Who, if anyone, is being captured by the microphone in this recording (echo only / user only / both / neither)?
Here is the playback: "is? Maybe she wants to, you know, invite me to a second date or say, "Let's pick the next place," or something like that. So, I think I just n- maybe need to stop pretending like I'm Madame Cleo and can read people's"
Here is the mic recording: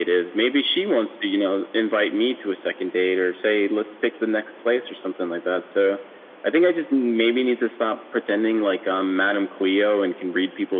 echo only